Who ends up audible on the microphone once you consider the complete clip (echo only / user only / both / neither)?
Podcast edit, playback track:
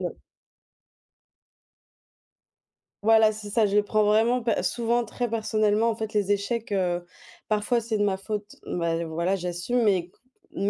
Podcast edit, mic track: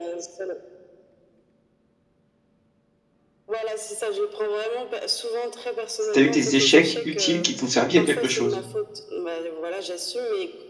both